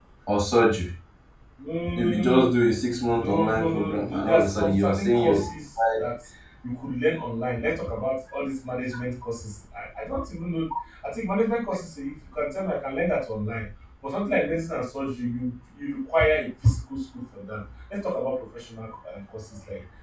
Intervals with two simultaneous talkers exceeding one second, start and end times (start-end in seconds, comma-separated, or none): 3.2-5.4